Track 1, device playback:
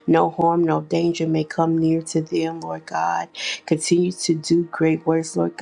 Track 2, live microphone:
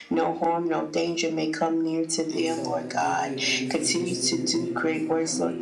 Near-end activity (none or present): present